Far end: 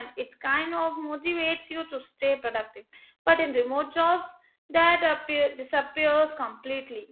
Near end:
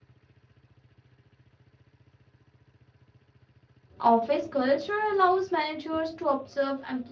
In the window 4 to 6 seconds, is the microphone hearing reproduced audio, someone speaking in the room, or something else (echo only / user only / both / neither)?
user only